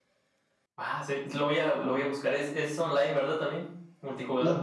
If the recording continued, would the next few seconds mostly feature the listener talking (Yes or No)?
Yes